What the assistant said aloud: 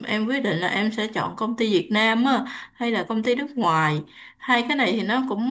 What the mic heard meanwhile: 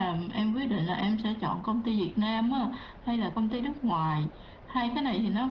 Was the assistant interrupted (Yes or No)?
No